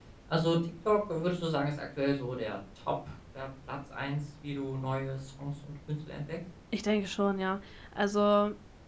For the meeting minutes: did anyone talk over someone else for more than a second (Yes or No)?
No